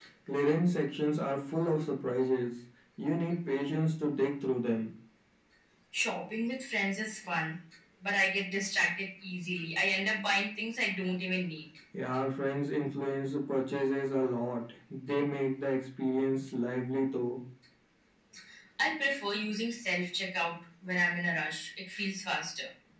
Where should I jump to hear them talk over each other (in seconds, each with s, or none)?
none